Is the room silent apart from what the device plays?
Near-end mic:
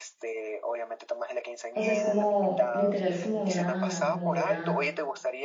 No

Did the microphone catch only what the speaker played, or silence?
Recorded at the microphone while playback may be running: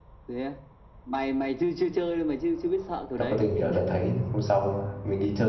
No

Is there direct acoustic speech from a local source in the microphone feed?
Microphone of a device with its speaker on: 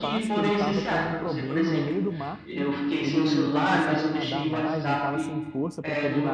Yes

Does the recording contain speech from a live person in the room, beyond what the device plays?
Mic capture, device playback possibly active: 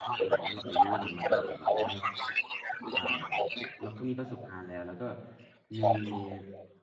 Yes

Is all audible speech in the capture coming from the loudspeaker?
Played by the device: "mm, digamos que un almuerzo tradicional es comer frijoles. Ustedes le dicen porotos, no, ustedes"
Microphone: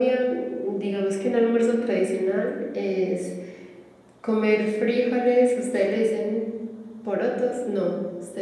Yes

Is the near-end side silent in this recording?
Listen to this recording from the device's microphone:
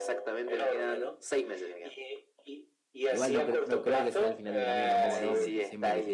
No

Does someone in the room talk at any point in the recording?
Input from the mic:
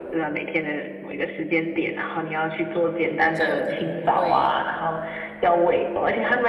Yes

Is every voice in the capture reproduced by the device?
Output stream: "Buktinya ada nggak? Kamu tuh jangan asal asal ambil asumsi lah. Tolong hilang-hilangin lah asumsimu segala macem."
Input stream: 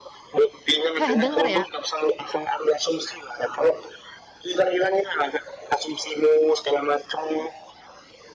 No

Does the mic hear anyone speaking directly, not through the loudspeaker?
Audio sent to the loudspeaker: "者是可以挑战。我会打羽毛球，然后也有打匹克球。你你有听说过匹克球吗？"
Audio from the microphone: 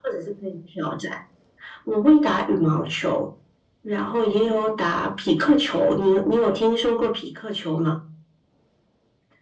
No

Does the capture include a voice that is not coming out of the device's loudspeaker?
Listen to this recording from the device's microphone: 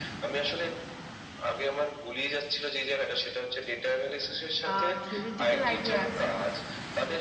Yes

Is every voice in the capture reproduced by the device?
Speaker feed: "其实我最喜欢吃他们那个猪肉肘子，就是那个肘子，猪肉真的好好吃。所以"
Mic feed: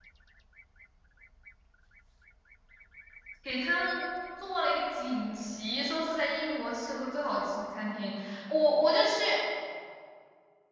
No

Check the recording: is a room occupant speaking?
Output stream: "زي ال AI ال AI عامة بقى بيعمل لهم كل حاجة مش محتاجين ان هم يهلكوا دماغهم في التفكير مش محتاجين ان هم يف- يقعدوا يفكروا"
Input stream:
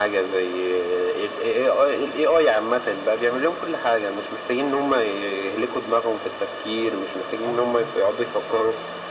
Yes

